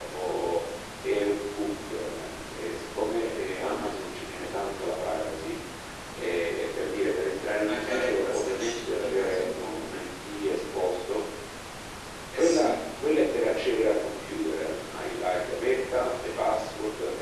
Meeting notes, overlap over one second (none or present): present